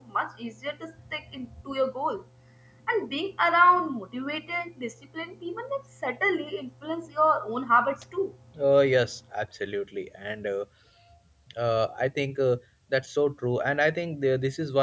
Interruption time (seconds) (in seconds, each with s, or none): none